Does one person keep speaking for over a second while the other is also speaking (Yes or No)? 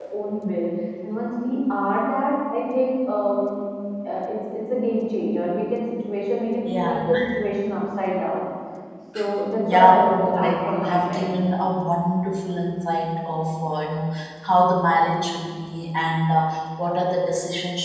Yes